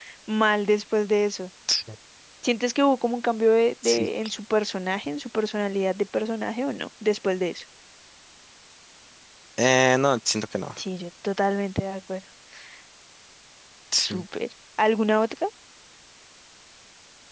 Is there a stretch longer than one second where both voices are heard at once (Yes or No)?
No